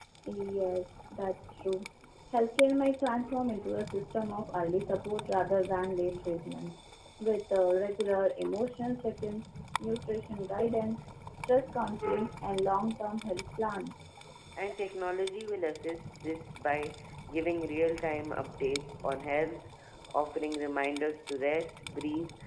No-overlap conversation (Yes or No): Yes